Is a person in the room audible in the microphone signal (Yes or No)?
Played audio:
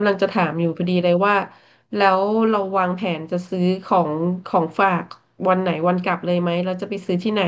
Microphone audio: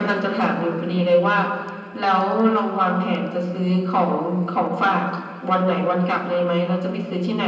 No